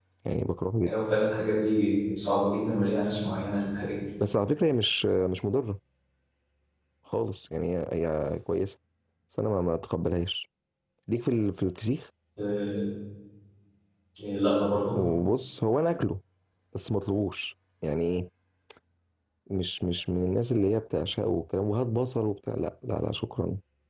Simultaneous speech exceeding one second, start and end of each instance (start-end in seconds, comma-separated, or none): none